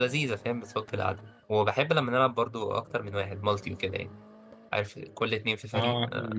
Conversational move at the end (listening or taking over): taking over